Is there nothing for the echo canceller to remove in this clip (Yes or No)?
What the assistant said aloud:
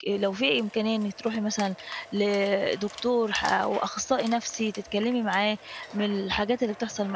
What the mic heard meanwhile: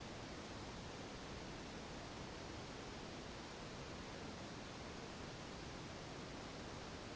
Yes